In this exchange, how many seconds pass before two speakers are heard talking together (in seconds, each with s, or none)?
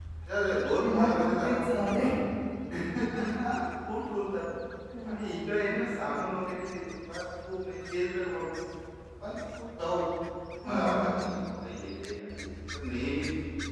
0.8 s